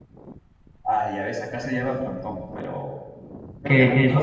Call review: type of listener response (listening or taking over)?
taking over